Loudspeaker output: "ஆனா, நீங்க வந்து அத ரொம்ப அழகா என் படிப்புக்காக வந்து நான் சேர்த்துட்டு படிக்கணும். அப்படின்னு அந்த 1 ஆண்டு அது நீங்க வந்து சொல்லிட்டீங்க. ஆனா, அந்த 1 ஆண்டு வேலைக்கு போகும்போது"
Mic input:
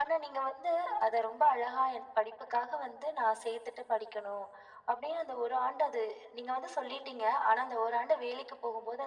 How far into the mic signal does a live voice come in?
none

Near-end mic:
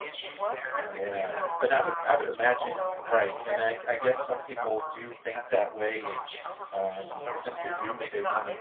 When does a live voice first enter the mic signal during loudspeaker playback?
0.8 s

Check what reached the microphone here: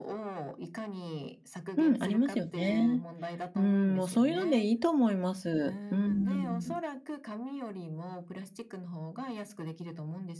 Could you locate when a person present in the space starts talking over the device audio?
1.8 s

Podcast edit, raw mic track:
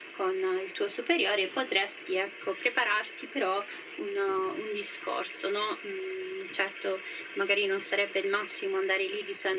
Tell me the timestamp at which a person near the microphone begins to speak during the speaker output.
none

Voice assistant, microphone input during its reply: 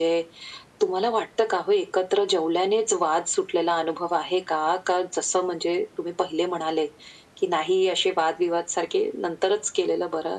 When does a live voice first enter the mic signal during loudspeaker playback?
none

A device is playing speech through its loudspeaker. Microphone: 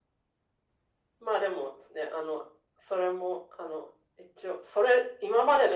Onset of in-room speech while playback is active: none

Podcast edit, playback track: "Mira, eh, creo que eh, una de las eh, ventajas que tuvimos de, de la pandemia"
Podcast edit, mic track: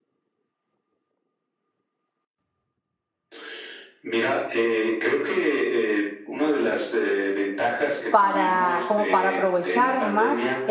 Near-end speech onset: 8.1 s

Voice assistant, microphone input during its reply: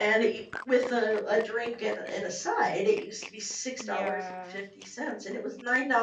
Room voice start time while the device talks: 3.8 s

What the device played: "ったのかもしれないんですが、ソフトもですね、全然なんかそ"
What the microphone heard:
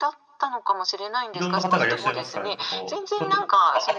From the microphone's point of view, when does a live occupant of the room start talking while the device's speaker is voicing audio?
1.3 s

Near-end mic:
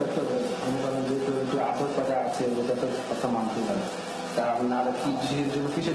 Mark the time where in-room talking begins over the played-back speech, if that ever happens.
none

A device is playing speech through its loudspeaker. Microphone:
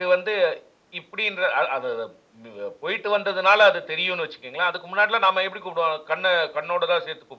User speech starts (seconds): none

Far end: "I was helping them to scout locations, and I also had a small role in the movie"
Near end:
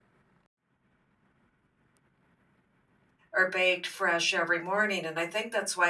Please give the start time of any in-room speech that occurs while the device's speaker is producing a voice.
3.3 s

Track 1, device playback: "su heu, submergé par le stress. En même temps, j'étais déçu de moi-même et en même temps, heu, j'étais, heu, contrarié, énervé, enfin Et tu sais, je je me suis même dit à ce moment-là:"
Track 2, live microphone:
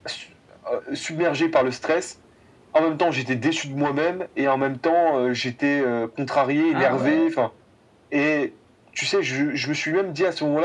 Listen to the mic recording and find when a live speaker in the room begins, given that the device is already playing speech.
6.7 s

